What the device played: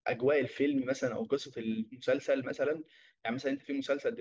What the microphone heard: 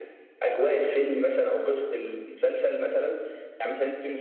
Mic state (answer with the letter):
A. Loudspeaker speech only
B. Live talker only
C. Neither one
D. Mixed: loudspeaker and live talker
A